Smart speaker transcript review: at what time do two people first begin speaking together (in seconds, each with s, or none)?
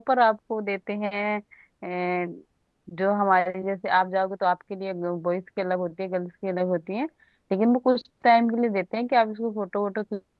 none